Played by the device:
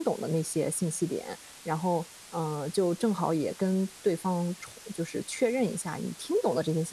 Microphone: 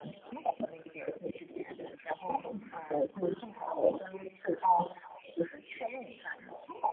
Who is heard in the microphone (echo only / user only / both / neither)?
both